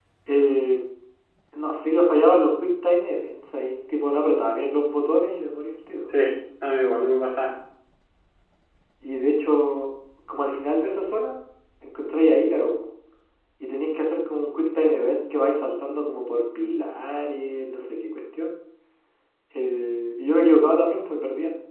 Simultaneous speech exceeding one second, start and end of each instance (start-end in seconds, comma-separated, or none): none